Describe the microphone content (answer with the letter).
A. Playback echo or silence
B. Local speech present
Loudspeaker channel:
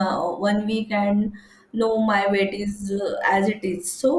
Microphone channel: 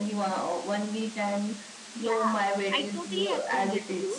B